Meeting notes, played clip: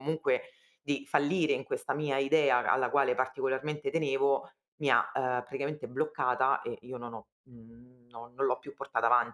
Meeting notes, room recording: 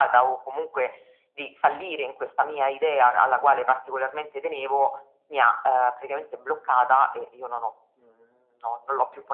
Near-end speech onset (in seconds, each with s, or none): none